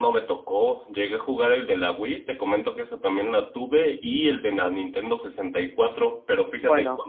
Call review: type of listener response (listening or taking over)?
listening